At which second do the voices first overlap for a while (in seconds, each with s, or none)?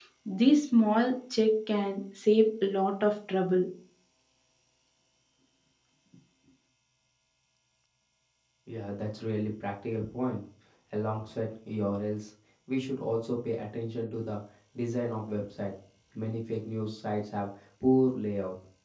none